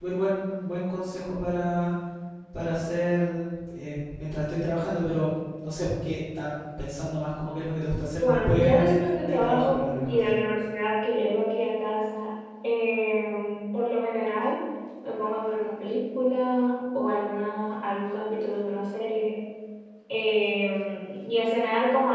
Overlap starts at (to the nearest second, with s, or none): 8 s